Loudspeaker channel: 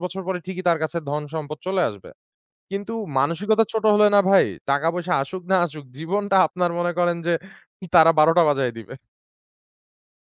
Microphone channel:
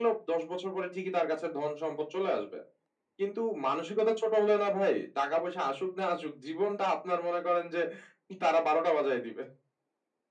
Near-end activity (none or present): none